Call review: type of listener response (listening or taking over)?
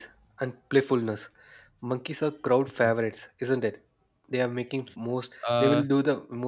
listening